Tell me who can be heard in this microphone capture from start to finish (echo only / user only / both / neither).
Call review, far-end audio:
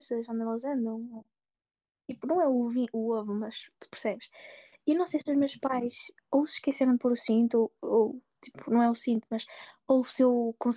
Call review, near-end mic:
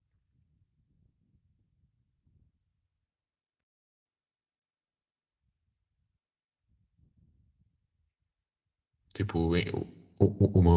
user only